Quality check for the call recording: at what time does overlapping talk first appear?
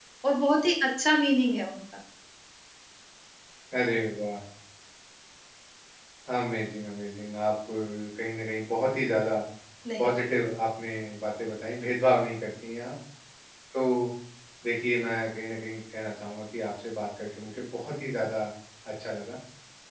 none

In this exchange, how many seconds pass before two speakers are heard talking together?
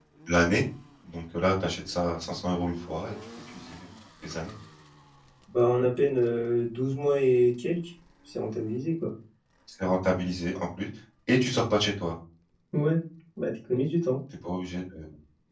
none

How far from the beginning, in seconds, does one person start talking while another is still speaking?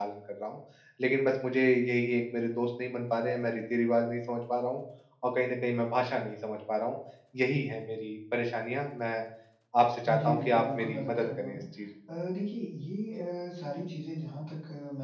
10.2 s

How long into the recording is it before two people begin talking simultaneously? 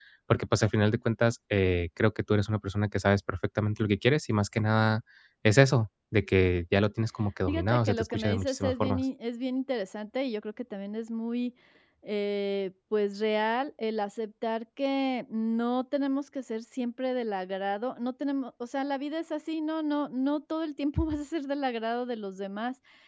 7.5 s

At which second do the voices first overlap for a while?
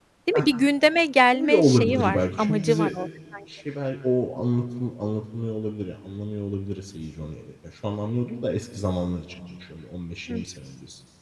1.3 s

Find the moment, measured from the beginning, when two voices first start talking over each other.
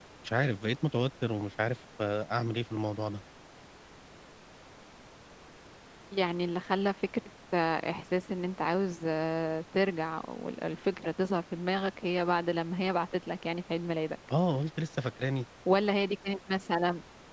none

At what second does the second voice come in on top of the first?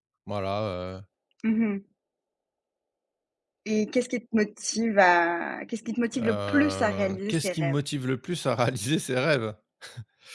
6.2 s

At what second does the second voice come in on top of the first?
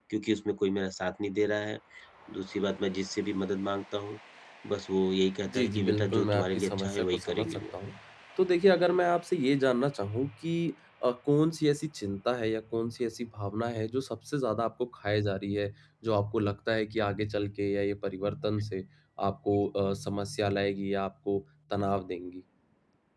5.5 s

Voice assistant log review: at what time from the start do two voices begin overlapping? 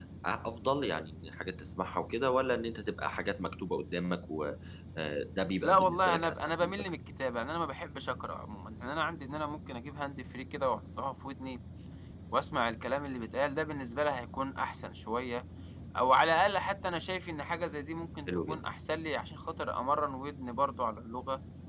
5.6 s

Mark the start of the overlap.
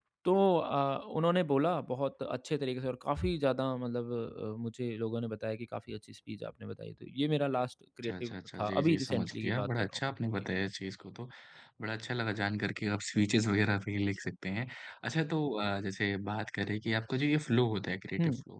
8.0 s

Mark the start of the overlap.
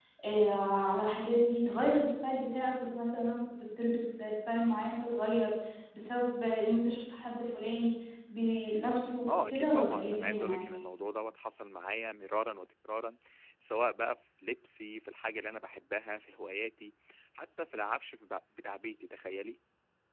9.3 s

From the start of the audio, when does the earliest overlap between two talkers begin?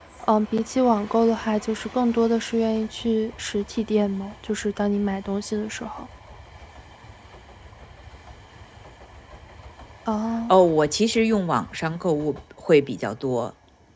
none

